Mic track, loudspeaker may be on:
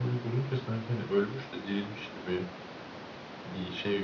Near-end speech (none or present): none